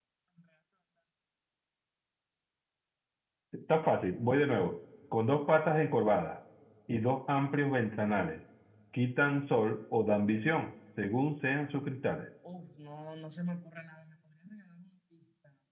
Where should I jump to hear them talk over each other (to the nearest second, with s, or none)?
none